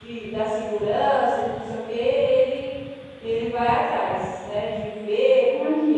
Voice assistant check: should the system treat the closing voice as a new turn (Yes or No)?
No